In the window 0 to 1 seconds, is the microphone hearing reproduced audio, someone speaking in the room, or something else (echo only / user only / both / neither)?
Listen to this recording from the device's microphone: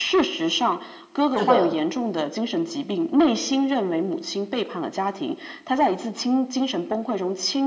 echo only